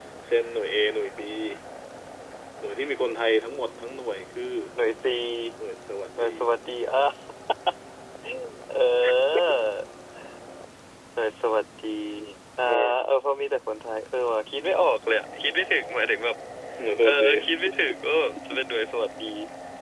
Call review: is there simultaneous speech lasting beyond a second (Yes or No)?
No